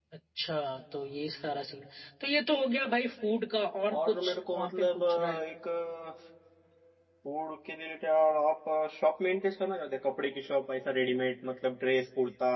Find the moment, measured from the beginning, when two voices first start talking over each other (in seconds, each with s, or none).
3.9 s